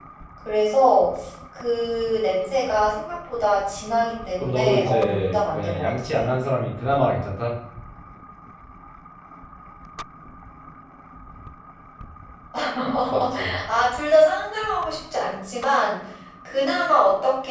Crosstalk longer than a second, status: present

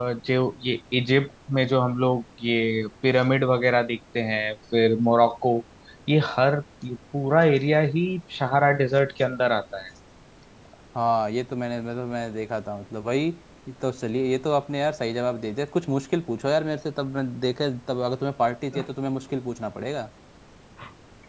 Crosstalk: none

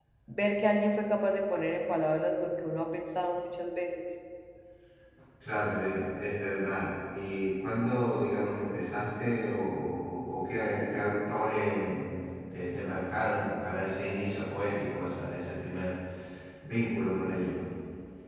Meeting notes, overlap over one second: none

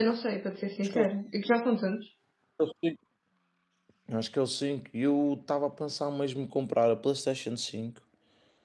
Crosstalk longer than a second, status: none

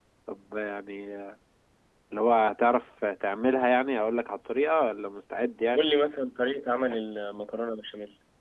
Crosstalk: none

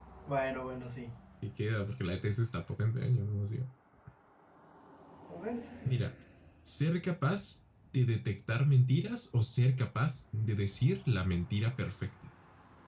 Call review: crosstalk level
none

